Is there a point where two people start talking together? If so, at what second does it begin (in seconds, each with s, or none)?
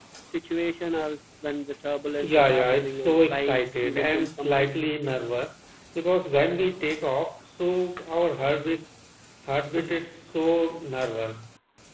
2.2 s